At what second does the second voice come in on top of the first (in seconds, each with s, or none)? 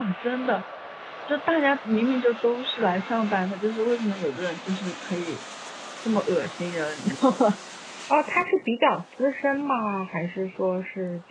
none